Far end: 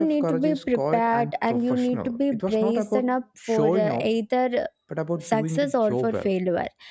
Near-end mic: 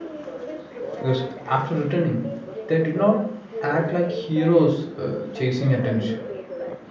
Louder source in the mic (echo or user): user